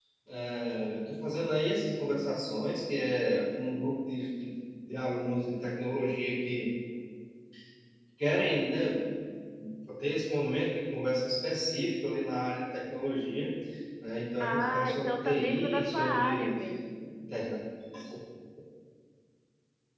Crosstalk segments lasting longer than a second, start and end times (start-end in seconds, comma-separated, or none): 14.4-16.6